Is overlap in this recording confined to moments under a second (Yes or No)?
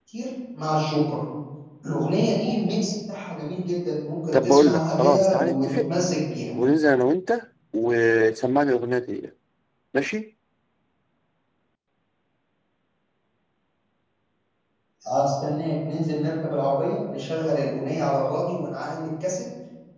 No